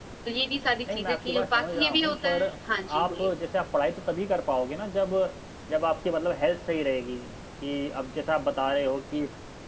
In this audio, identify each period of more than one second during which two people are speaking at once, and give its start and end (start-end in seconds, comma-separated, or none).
0.9-2.4